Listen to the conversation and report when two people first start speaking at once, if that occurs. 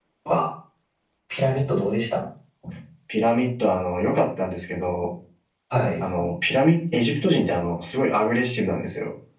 none

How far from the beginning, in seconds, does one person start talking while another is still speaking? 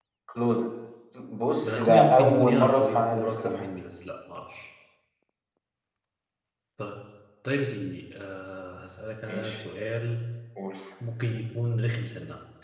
1.6 s

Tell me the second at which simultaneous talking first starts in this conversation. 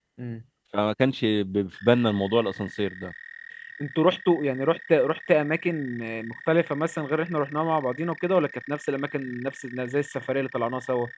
none

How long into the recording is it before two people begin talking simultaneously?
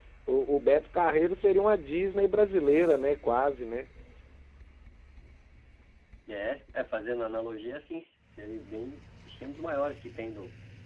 none

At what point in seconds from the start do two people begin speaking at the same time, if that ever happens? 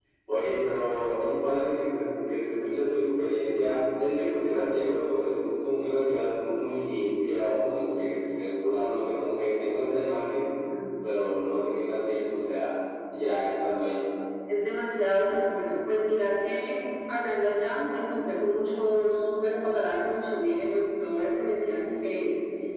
none

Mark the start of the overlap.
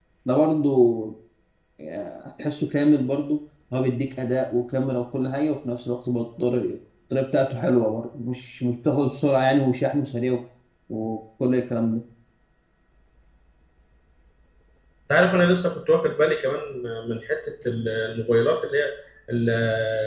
none

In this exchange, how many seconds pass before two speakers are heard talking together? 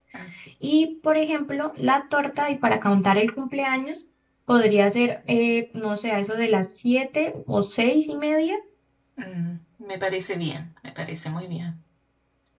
none

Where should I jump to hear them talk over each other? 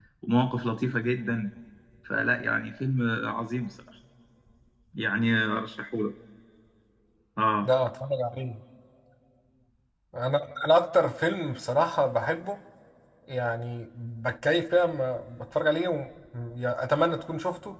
none

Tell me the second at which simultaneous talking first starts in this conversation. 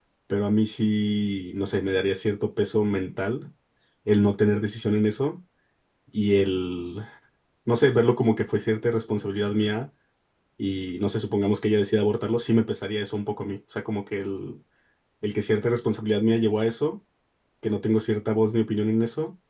none

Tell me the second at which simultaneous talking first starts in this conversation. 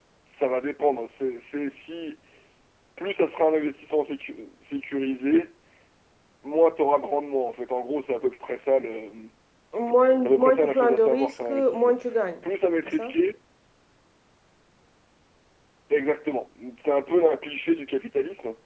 10.2 s

